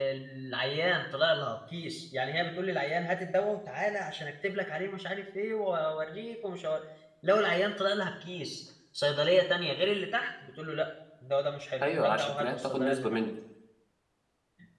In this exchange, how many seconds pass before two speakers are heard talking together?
12 s

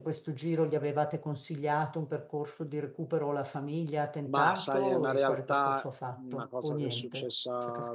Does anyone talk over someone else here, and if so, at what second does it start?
4 s

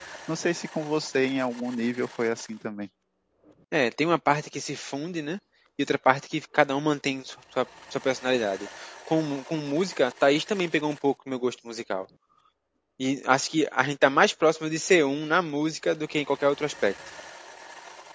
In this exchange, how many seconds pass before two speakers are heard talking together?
none

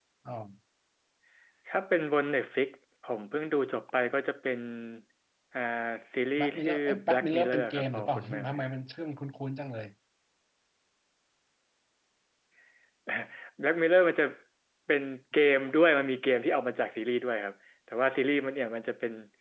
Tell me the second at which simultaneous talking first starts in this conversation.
6 s

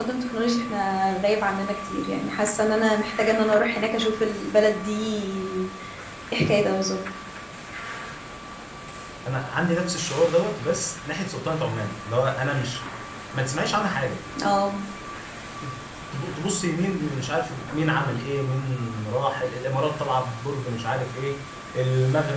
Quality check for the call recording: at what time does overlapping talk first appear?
none

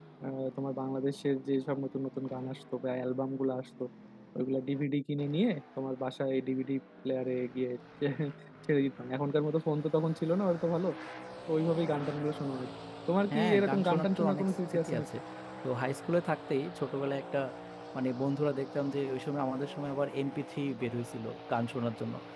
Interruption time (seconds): 13 s

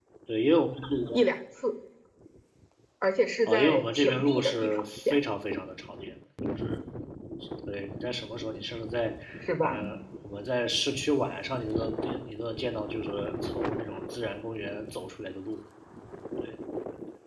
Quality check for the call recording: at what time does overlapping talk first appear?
3 s

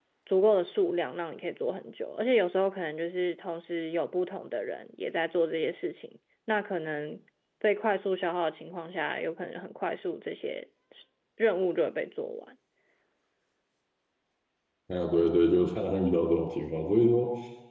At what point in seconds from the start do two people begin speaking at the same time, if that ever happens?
none

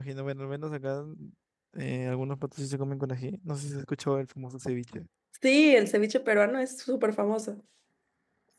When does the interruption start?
none

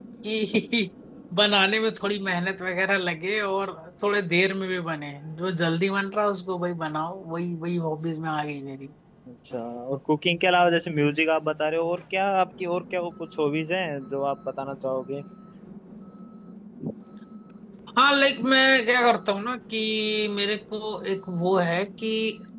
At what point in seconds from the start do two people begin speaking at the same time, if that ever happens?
none

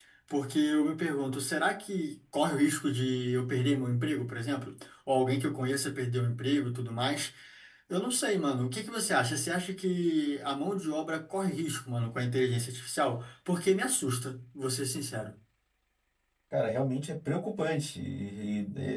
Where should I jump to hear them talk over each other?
none

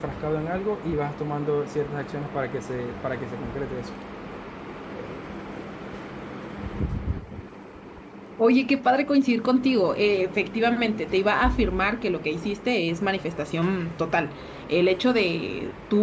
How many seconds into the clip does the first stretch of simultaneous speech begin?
none

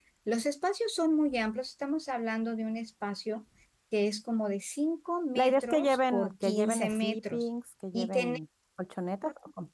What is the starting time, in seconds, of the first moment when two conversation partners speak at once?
5 s

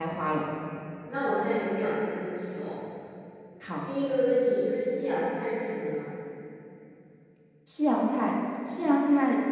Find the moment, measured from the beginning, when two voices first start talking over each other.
none

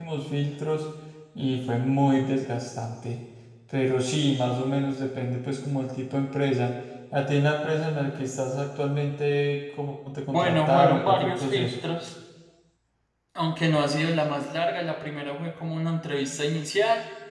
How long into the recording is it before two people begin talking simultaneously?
10 s

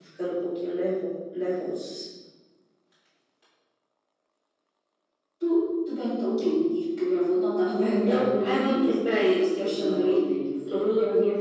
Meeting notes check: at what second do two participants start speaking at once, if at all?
8 s

